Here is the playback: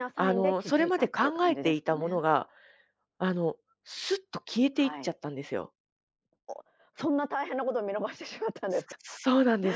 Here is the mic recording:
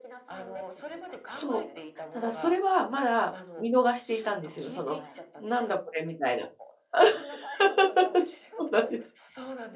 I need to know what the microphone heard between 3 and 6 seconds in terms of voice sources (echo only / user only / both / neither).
both